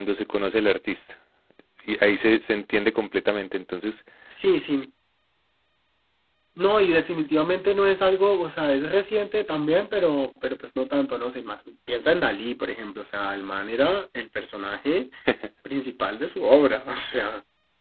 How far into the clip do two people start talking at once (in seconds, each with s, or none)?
none